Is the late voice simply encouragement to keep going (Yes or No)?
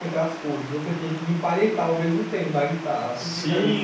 No